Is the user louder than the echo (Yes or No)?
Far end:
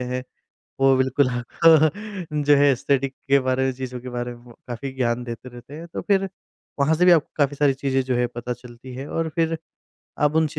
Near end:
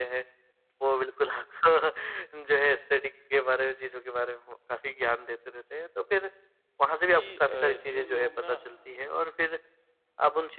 No